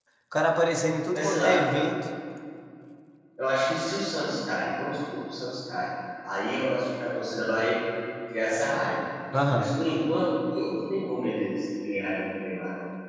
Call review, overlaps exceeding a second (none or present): none